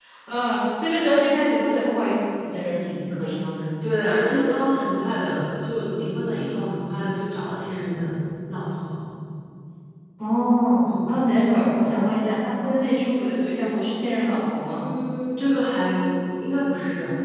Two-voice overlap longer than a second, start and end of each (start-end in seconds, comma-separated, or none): none